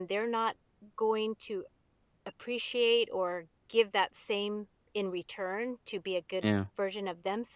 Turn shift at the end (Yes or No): No